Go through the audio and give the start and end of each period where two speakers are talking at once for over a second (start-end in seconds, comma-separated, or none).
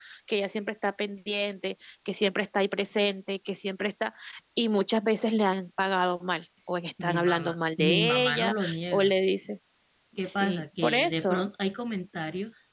7.0-9.1, 10.2-11.4